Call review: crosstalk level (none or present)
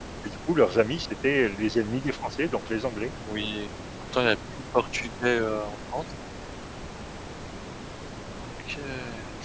none